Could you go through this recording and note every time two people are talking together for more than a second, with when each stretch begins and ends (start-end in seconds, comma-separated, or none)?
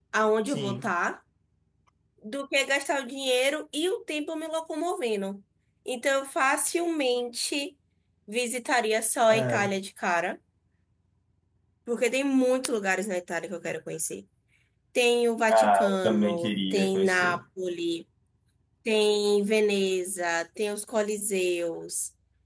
15.5-17.4